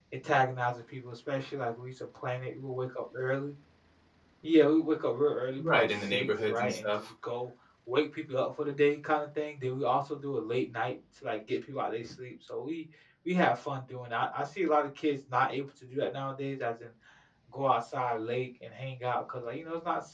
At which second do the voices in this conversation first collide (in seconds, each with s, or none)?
5.6 s